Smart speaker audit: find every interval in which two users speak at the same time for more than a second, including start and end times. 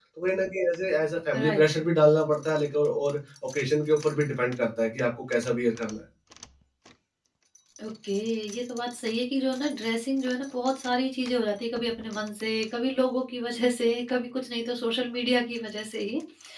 none

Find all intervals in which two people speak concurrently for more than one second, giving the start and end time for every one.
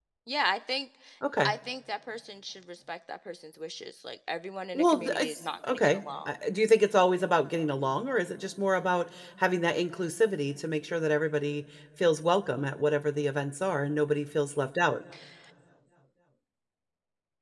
4.8-6.3

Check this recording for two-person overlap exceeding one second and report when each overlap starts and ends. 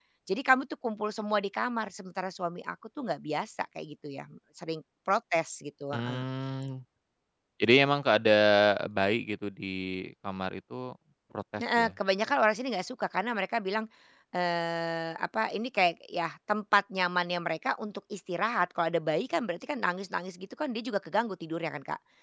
none

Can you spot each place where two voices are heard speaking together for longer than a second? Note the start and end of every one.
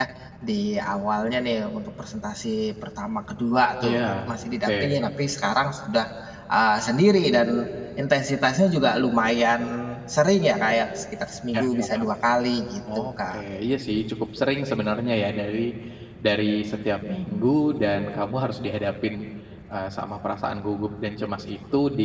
none

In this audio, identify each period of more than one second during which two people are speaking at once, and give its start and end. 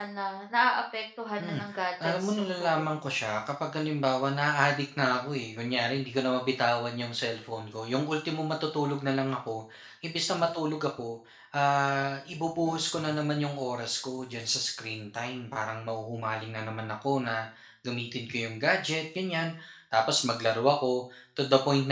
1.4-3.2

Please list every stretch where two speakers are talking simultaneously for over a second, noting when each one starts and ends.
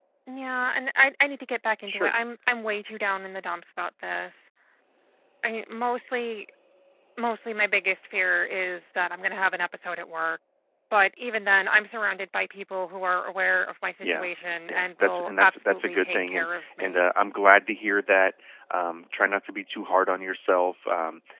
14.7-17.0

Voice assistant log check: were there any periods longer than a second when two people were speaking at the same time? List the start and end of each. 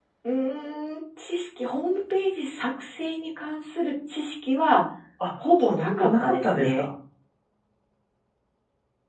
5.5-6.9

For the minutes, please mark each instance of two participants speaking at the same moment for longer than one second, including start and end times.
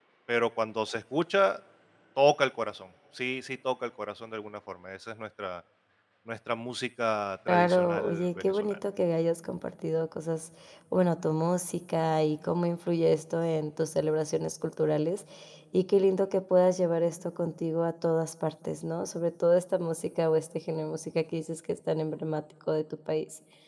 7.5-8.8

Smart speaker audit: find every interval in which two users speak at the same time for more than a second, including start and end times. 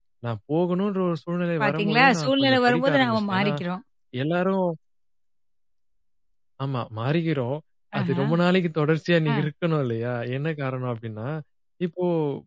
1.6-3.5

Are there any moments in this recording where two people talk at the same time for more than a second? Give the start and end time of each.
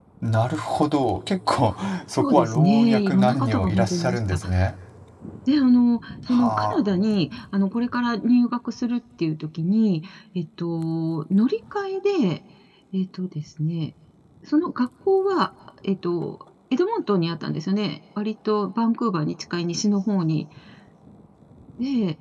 2.2-4.4

